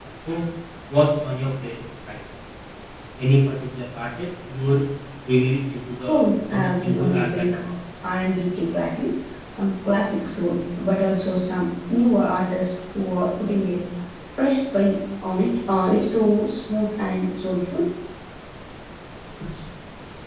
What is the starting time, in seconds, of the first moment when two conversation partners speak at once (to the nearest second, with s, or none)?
6 s